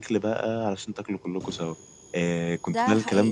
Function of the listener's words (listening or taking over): listening